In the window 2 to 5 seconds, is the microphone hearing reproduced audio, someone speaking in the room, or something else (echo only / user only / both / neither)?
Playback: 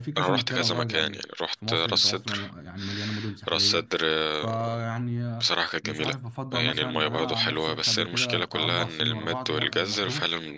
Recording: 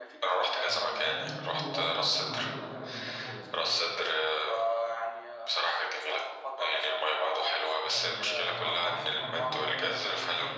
both